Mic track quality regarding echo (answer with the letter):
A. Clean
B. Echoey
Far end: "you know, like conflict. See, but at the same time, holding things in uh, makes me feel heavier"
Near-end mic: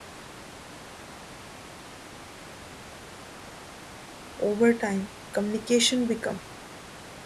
A